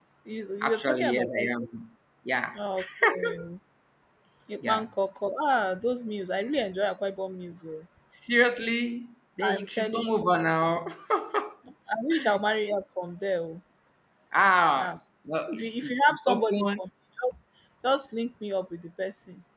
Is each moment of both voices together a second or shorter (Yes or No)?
No